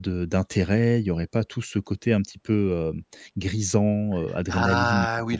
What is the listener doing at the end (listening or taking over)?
taking over